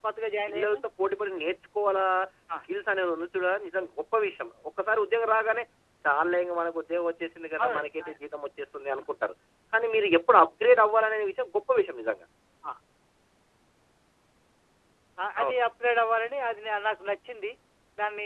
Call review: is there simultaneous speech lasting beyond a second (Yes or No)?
No